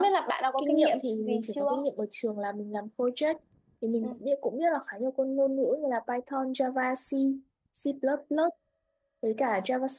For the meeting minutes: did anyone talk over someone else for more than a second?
Yes, from 0.6 s

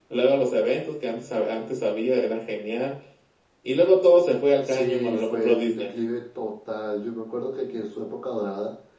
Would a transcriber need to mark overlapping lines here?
Yes, from 4.6 s

